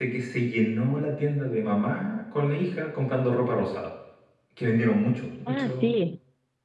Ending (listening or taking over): taking over